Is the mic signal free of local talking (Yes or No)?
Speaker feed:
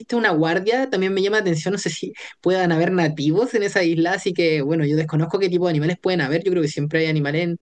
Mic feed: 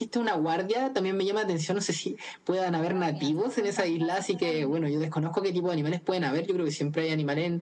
No